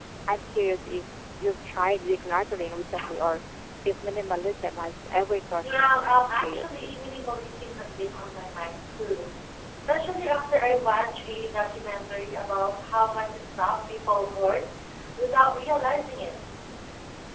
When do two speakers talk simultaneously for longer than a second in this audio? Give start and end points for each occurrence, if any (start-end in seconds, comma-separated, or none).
5.6-6.9